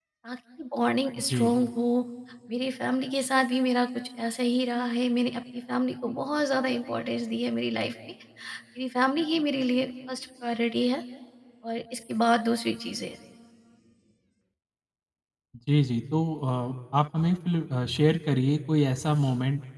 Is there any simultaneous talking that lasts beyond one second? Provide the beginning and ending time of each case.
none

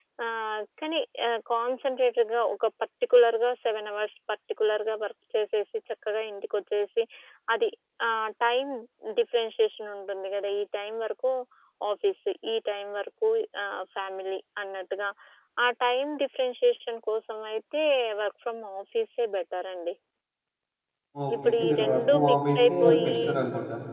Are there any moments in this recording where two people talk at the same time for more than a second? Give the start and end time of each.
21.4-23.2

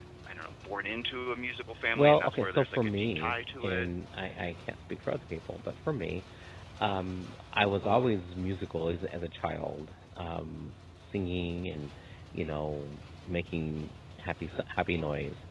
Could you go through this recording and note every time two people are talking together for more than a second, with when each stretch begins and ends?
2.0-3.9

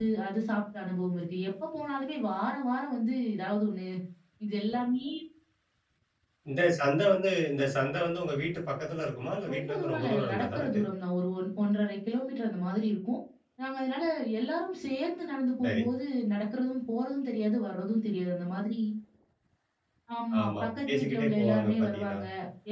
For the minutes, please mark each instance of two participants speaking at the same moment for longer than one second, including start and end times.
9.5-10.8, 20.4-22.2

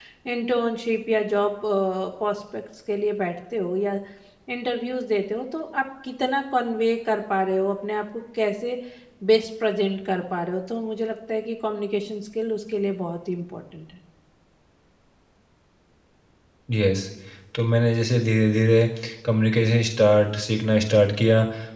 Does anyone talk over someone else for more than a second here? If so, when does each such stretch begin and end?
none

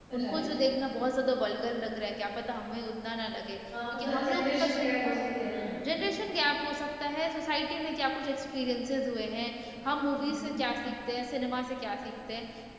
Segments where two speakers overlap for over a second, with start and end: 3.9-5.2

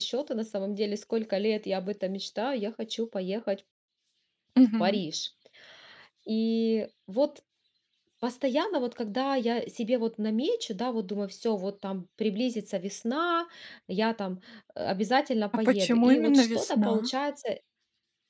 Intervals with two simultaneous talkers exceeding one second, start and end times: 15.7-17.1

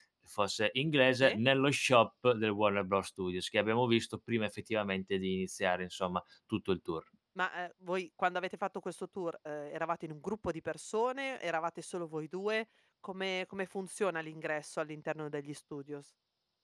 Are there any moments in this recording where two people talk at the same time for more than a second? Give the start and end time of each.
none

